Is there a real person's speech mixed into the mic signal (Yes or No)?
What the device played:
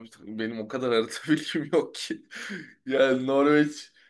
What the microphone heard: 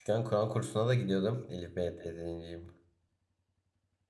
Yes